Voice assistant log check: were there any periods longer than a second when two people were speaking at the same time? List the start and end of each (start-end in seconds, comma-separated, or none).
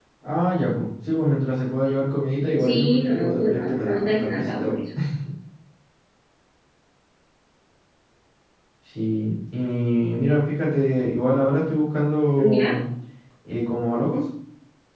2.6-4.8